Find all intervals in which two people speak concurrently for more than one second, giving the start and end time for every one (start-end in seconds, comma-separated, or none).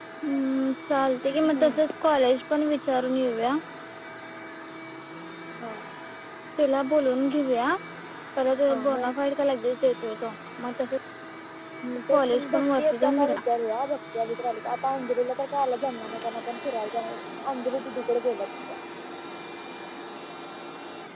12.2-13.4